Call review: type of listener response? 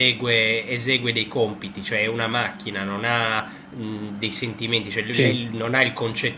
listening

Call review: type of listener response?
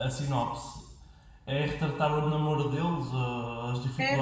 taking over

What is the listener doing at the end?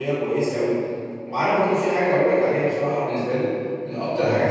listening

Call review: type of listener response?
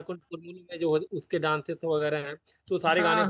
listening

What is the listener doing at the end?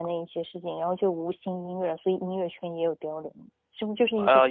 taking over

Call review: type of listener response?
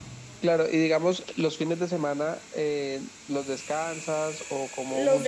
taking over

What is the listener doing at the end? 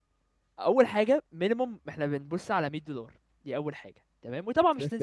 listening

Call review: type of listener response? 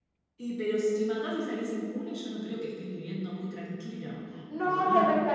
taking over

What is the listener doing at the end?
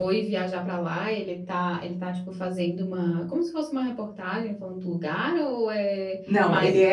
taking over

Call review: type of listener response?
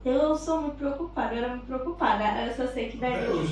listening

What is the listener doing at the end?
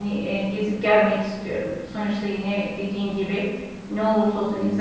listening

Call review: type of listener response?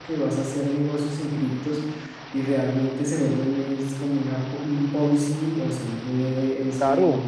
taking over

